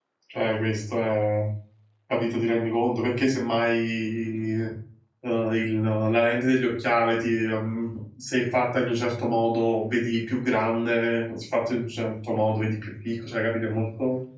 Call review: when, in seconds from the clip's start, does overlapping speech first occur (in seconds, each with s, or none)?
none